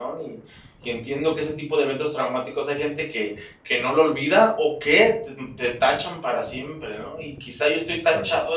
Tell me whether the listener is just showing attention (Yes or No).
Yes